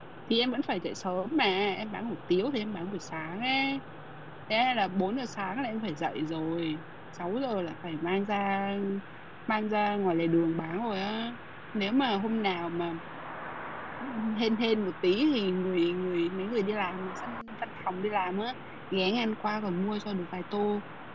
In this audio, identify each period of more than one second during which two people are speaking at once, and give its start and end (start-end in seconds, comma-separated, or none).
none